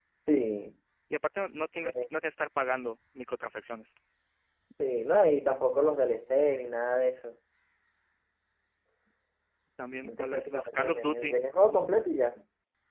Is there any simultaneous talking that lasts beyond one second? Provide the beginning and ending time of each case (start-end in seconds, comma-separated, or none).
10.0-11.3